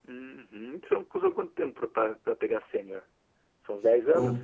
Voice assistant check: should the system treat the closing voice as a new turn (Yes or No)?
Yes